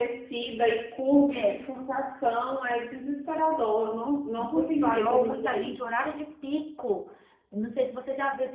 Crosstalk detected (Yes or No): Yes